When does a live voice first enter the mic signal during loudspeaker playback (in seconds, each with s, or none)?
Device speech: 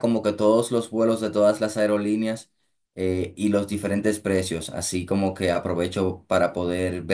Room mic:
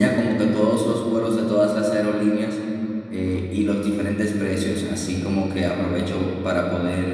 none